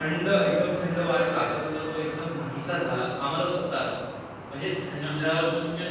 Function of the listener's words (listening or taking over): taking over